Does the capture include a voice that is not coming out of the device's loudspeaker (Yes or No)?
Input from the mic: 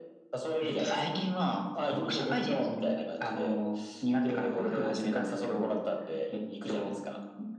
No